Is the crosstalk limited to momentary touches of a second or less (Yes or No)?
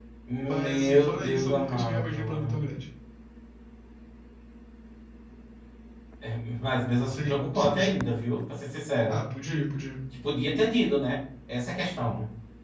No